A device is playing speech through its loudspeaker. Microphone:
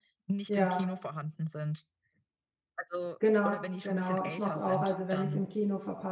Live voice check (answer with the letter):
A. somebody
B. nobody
A